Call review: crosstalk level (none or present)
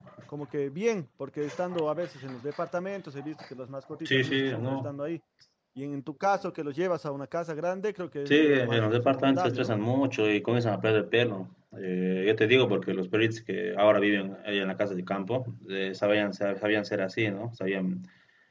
present